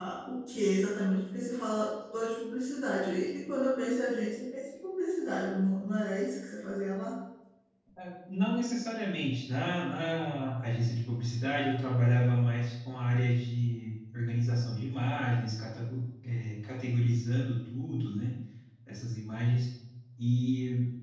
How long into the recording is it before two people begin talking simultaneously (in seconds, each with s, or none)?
none